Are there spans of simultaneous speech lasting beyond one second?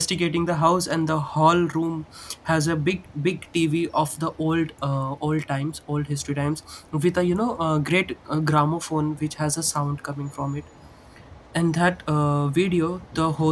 No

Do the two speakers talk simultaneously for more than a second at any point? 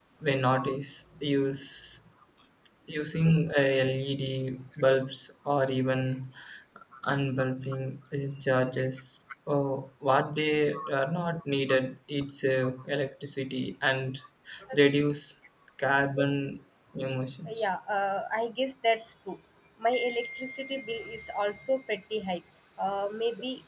No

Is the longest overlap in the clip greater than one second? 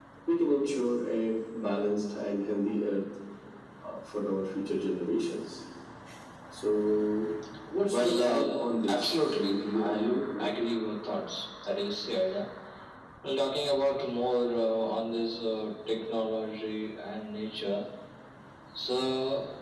Yes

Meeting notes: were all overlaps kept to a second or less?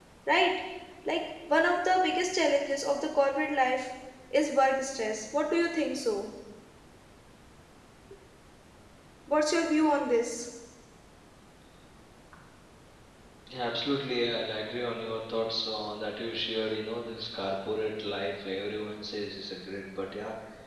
Yes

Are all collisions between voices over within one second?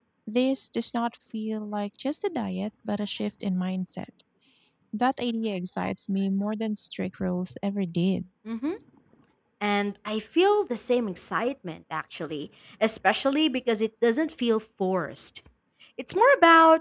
Yes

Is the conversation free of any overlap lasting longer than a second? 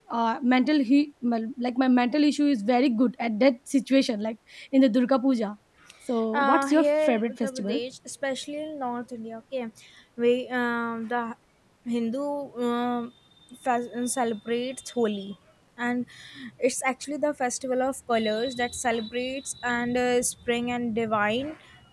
No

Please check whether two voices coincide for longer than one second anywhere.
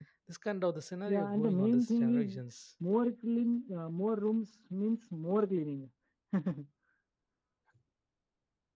Yes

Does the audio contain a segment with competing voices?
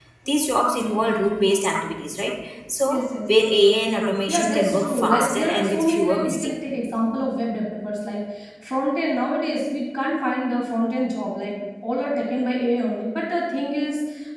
Yes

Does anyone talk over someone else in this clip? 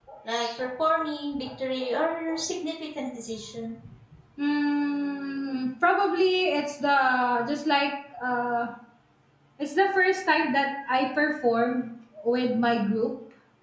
No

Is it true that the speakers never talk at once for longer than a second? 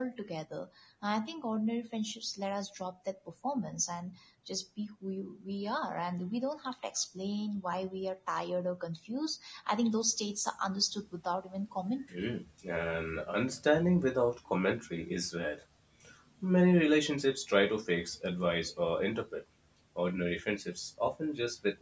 Yes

